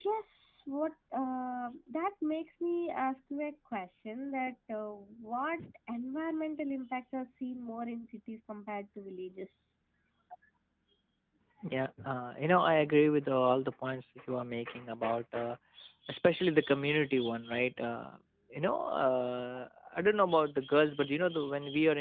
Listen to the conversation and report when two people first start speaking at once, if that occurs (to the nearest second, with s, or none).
none